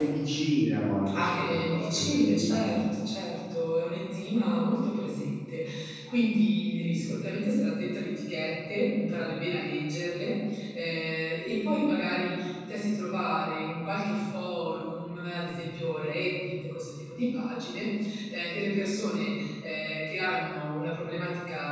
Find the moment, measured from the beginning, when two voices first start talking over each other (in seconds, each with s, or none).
1.1 s